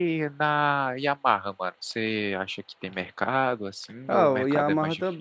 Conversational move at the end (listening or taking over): taking over